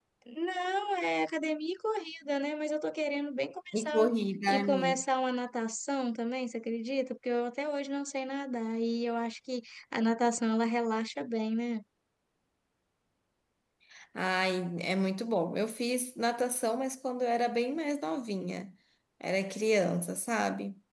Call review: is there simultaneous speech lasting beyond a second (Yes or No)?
No